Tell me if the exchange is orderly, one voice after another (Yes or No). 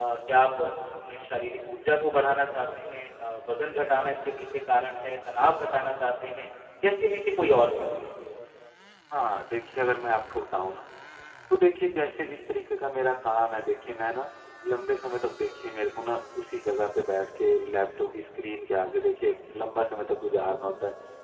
Yes